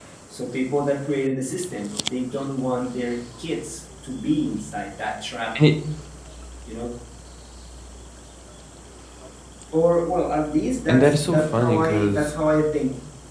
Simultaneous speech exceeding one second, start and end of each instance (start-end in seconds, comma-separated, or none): 10.9-12.3